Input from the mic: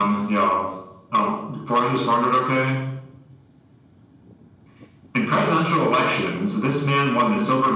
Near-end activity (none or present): none